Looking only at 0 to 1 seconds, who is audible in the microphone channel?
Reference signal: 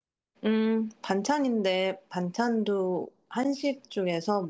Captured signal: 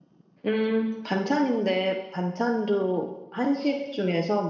echo only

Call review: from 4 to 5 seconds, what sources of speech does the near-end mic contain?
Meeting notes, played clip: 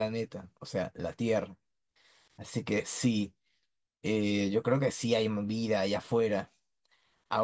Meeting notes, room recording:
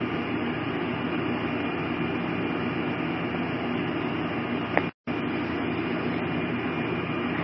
neither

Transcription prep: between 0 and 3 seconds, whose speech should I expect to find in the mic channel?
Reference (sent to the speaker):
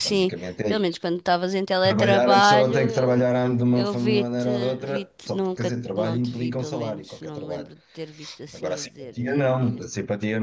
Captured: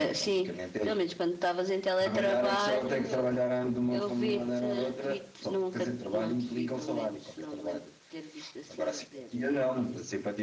echo only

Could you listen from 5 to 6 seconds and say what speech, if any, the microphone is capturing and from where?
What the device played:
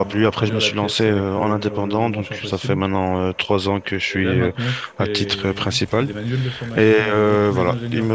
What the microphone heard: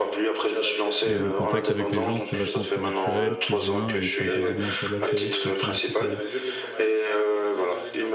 both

